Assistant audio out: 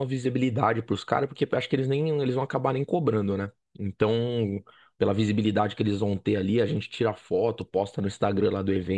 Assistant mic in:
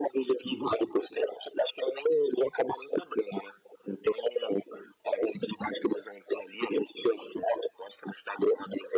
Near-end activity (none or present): none